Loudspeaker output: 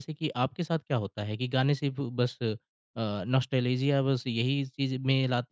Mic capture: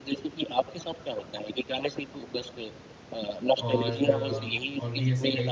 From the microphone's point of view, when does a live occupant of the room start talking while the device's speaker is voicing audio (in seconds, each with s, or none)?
3.6 s